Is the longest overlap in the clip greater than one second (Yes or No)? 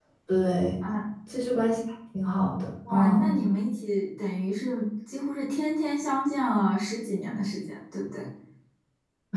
No